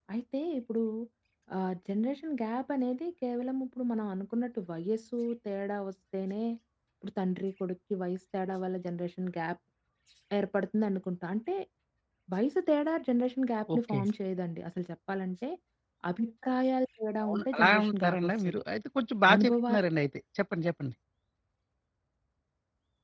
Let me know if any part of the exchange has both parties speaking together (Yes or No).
Yes